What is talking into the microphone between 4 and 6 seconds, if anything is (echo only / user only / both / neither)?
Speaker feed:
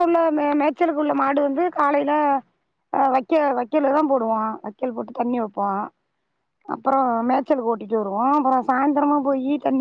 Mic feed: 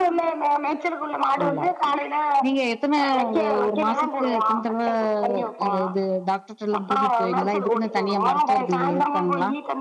both